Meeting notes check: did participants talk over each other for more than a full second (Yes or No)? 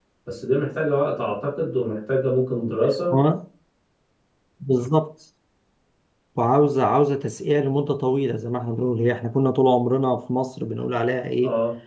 No